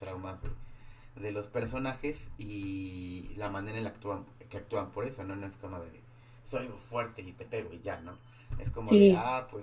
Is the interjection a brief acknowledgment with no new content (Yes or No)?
Yes